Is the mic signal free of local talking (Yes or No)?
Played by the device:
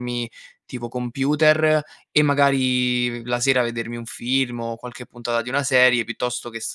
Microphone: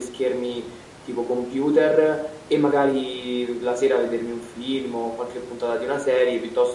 Yes